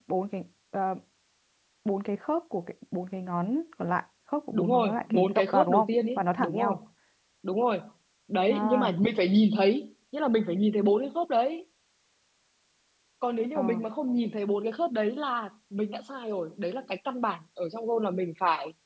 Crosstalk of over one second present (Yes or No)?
Yes